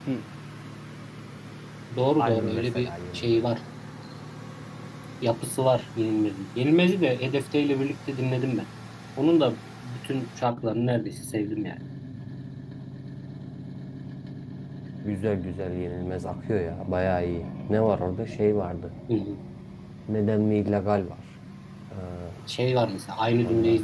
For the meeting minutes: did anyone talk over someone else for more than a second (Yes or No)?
Yes